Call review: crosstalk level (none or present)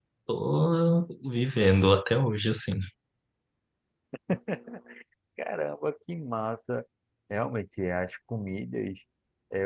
none